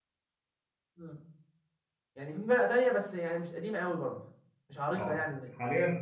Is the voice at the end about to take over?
Yes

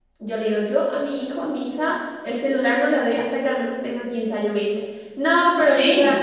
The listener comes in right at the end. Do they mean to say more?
No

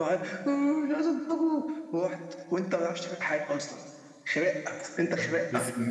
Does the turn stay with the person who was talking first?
No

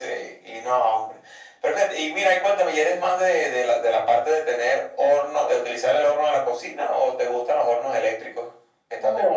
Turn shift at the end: Yes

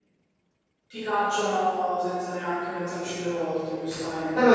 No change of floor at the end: No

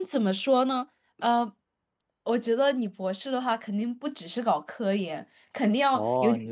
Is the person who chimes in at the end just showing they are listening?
No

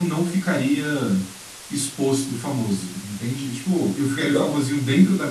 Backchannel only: Yes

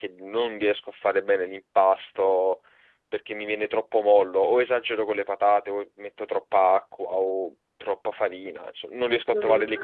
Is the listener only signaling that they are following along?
No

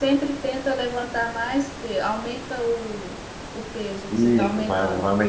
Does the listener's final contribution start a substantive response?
Yes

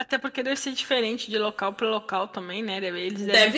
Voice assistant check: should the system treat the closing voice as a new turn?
No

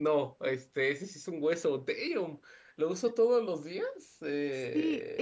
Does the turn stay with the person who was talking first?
No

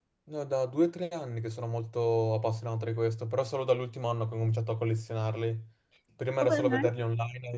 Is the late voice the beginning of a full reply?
No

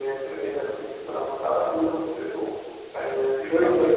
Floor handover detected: Yes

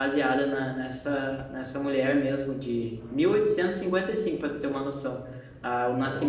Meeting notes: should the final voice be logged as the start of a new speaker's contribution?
No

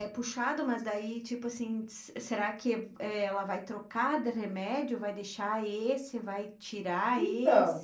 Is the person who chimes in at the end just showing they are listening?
No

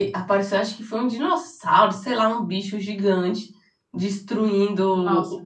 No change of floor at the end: Yes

